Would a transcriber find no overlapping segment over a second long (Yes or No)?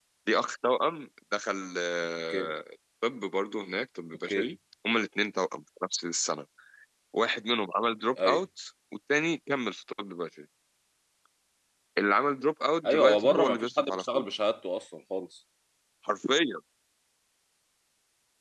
No